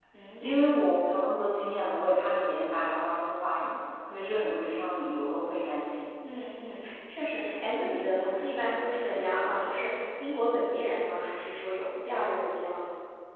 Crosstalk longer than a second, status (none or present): none